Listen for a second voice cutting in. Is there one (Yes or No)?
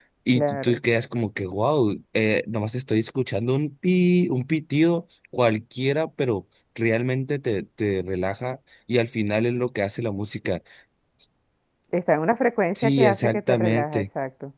Yes